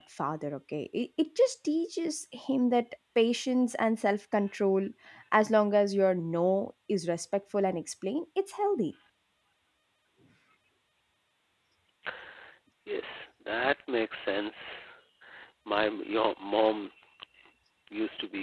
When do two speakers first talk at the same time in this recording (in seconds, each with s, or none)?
none